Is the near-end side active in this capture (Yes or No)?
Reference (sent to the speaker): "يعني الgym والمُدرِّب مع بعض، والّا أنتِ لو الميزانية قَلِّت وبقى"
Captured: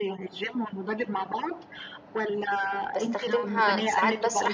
Yes